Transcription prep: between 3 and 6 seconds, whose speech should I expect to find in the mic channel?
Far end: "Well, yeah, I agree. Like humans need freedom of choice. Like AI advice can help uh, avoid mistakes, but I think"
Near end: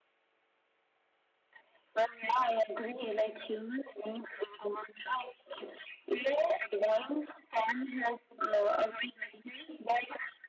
echo only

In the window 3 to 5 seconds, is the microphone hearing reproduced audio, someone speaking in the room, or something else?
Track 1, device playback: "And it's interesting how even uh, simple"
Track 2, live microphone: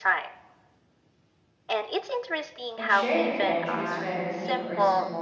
both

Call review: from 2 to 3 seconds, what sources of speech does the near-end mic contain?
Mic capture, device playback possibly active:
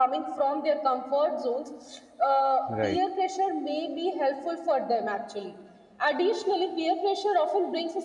both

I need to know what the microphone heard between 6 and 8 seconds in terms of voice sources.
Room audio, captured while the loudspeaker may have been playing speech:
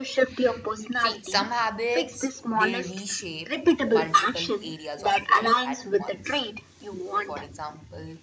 both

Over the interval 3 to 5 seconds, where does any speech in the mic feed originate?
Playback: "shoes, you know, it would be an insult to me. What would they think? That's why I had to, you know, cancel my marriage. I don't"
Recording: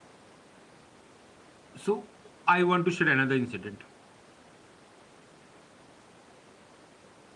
user only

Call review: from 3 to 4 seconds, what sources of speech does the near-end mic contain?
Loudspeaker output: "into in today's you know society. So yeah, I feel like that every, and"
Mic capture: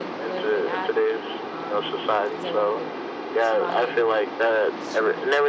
both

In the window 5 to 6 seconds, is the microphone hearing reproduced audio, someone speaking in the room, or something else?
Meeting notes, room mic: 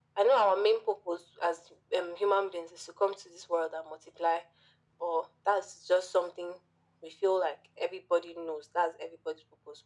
echo only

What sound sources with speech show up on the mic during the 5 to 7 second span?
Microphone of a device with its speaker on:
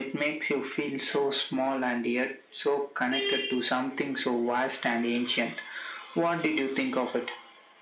echo only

